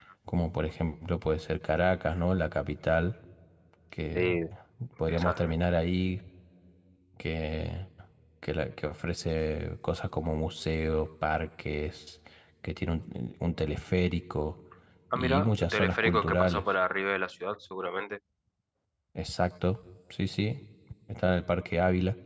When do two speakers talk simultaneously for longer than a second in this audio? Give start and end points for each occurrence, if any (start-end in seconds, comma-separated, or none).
15.2-16.6